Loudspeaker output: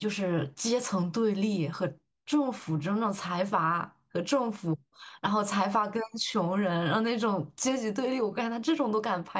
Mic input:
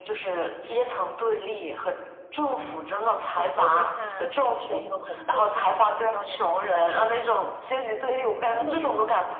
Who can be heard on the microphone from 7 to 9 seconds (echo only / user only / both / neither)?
both